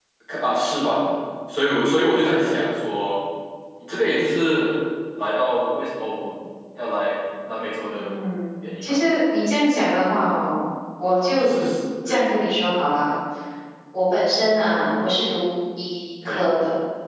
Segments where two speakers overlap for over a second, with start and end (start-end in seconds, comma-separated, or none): none